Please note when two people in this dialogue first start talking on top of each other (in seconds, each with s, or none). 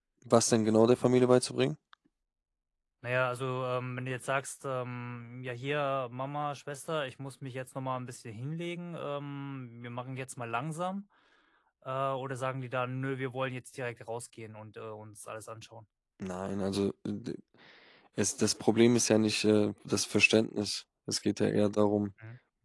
none